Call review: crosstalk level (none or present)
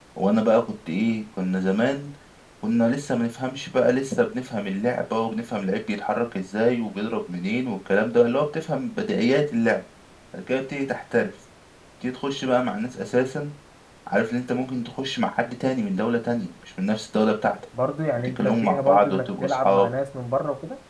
present